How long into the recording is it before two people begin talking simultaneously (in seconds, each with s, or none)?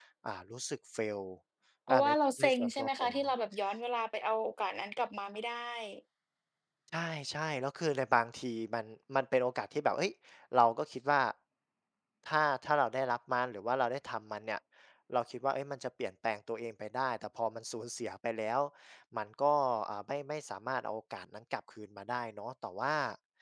1.9 s